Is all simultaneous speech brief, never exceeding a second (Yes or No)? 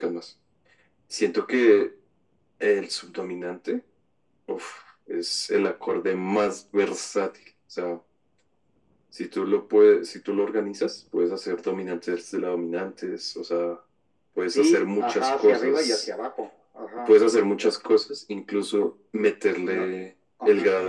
No